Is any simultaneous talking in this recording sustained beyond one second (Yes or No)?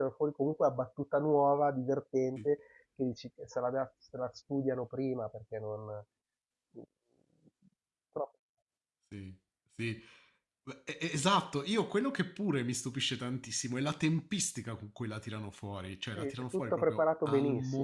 Yes